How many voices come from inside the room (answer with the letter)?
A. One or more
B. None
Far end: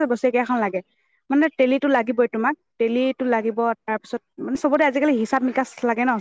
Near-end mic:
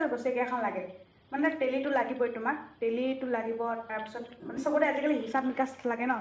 B